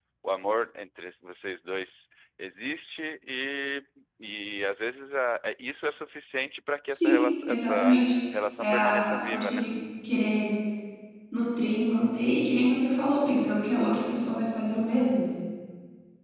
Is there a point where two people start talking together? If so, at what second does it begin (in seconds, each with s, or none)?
6.9 s